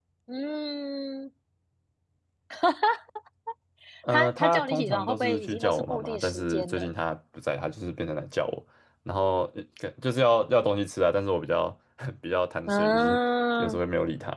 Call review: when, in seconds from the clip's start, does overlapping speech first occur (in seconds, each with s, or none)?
4.1 s